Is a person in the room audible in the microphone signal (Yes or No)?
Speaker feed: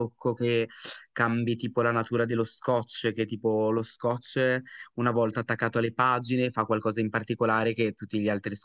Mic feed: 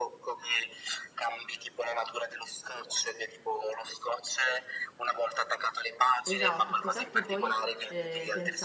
Yes